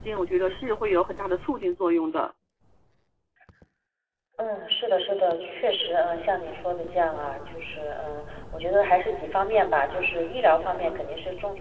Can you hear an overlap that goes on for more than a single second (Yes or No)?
No